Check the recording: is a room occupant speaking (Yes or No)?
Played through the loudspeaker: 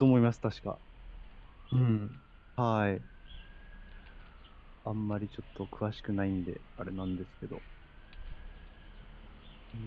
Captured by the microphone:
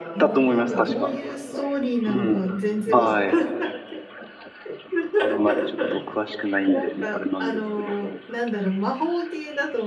Yes